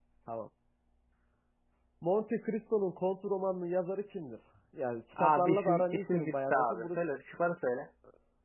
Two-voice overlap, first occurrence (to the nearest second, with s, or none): 5 s